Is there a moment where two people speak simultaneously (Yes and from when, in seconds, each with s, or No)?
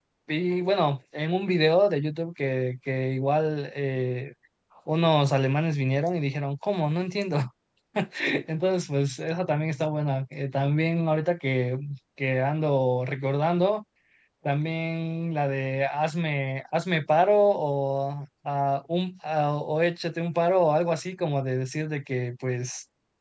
No